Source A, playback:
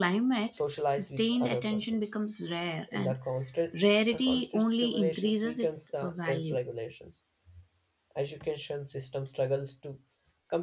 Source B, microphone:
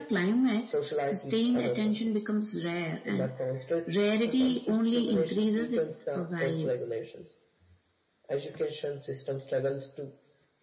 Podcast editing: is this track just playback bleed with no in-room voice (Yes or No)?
Yes